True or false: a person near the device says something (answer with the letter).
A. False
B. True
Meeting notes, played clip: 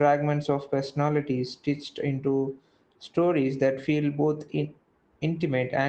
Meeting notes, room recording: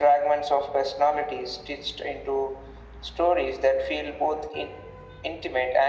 A